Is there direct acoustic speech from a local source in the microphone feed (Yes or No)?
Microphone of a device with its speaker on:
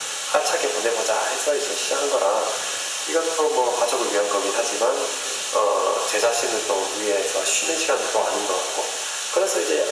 No